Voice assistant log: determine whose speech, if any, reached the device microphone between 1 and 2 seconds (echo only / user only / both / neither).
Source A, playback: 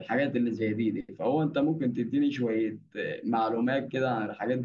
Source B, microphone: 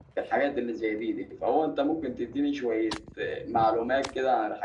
echo only